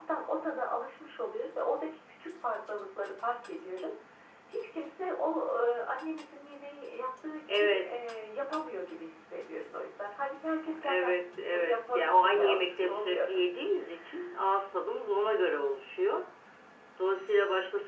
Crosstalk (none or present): present